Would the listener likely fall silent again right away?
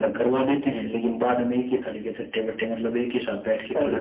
No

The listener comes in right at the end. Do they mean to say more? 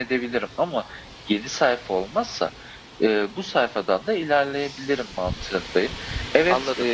Yes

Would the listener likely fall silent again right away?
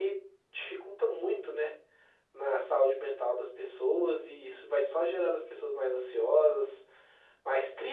Yes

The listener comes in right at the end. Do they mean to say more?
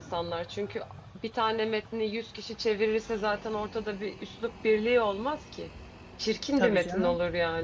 No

